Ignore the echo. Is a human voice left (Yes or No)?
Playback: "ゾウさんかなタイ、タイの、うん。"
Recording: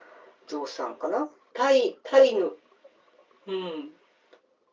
No